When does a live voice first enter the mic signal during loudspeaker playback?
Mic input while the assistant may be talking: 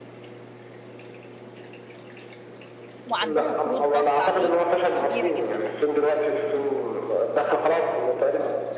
3.0 s

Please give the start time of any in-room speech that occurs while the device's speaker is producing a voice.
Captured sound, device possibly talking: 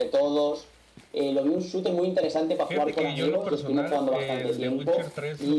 2.7 s

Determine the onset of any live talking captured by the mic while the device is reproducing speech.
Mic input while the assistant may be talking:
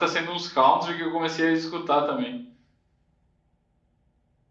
none

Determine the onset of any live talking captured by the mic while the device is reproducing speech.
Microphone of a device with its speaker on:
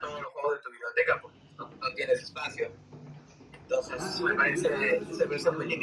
3.9 s

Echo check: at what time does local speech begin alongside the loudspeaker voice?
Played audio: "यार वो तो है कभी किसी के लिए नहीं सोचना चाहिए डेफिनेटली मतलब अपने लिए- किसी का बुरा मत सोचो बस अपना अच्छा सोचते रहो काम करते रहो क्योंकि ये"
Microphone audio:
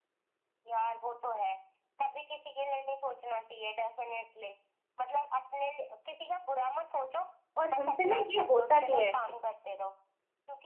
7.6 s

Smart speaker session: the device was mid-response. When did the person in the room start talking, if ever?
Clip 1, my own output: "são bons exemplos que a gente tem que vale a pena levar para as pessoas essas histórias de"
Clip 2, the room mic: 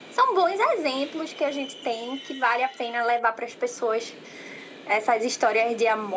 none

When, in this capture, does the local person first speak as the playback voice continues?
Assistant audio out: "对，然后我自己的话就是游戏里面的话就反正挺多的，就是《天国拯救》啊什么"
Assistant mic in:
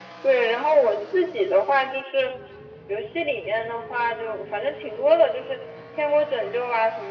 none

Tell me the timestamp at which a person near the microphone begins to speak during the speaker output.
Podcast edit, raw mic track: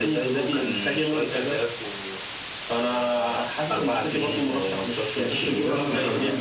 5.3 s

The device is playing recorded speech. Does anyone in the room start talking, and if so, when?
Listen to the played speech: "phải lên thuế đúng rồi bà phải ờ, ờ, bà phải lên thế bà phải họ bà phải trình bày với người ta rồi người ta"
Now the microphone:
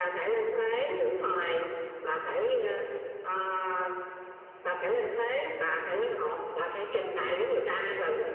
none

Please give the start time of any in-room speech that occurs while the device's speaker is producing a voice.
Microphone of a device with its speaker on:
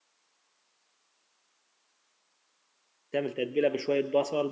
3.1 s

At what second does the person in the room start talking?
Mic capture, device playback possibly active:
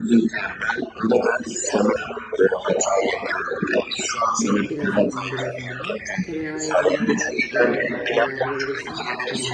4.4 s

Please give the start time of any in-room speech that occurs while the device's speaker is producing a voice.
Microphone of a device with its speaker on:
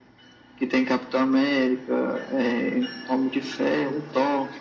none

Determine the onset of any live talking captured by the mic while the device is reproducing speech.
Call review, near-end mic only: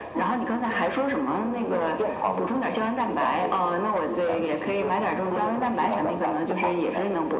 none

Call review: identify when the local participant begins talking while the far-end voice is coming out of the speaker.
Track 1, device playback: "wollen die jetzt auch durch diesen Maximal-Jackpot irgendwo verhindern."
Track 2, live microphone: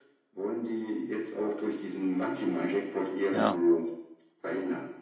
3.3 s

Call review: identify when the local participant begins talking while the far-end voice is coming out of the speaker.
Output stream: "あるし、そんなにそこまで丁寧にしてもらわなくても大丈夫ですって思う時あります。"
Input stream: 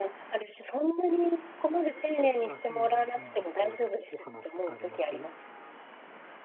2.2 s

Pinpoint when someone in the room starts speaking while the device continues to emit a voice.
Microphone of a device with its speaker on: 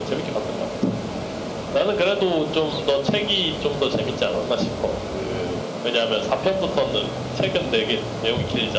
none

